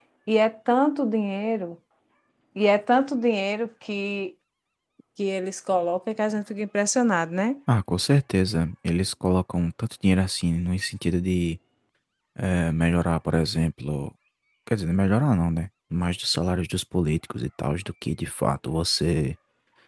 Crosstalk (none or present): none